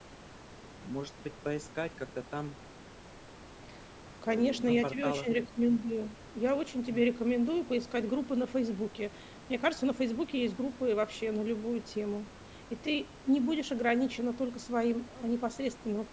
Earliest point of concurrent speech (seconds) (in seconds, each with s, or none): 4.2 s